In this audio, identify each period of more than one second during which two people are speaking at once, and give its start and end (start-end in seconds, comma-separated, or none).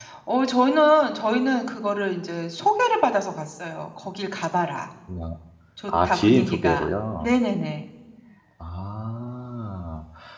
5.9-7.3